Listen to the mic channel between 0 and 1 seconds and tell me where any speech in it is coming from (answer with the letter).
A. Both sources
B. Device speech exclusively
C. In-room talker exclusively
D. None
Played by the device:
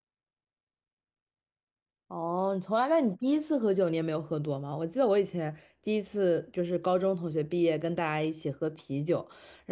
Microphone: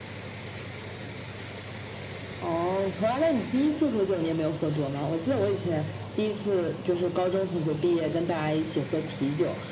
D